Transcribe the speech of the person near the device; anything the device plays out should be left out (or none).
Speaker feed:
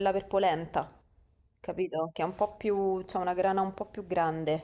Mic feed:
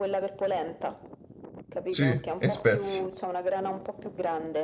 sì, e spezie,